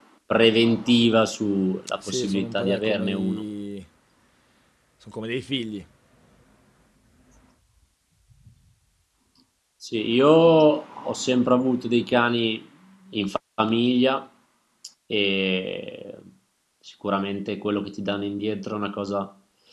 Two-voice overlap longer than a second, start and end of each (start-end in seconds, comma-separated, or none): 2.1-3.4